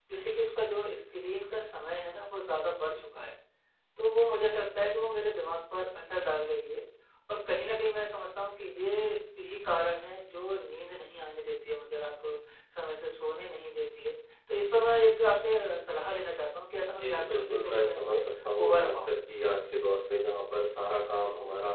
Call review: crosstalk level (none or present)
present